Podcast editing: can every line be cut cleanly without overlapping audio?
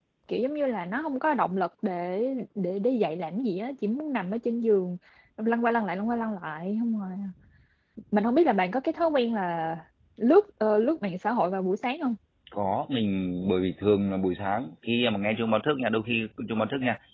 Yes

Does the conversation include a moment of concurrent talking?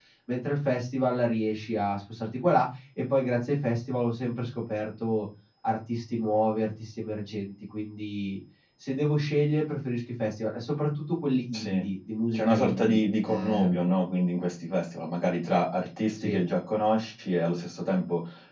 Yes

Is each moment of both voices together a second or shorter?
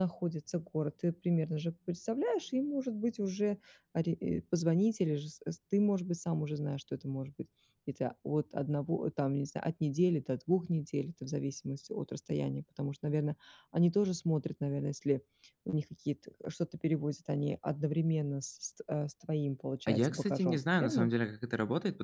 No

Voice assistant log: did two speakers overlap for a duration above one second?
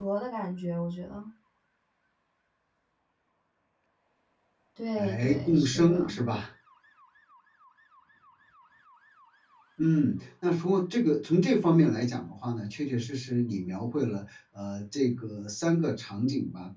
Yes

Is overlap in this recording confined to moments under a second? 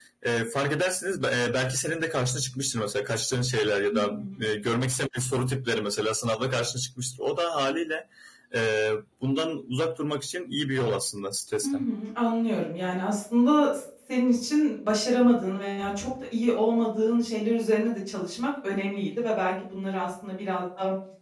Yes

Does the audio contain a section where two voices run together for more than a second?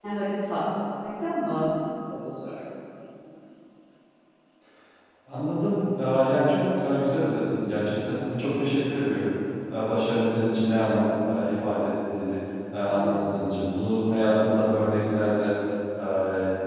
No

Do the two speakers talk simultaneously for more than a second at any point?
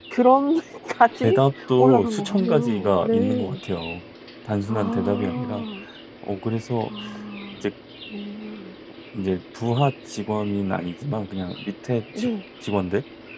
Yes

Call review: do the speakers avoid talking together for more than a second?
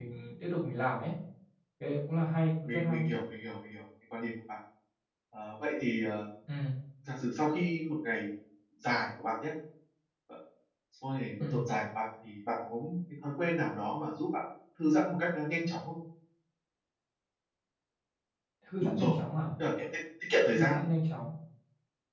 Yes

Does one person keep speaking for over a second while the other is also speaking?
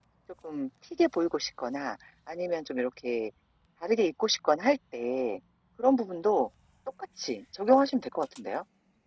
No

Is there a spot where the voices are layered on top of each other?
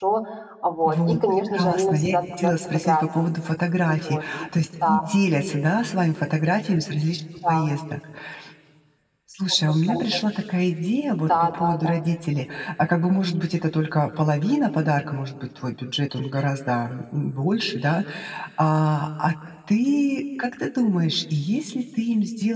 Yes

